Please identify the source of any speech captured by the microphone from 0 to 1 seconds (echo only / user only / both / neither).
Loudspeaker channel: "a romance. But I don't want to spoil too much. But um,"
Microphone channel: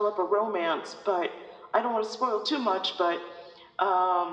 echo only